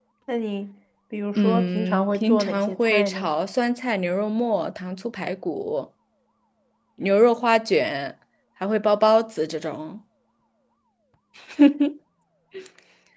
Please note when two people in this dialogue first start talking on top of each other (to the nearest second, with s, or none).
1 s